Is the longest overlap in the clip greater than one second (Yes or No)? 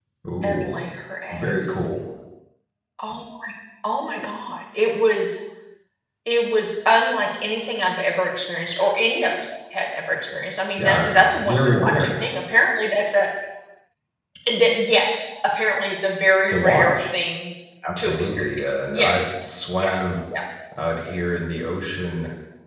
Yes